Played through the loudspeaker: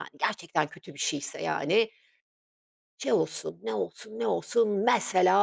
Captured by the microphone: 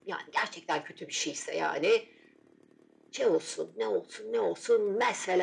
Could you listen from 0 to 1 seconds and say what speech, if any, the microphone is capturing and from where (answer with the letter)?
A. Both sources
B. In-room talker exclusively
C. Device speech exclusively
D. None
C